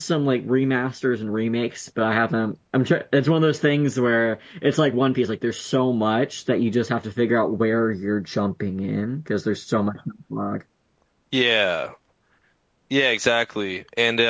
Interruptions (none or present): none